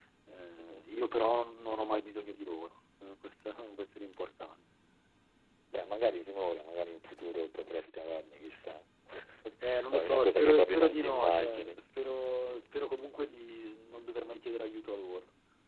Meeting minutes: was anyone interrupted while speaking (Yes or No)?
Yes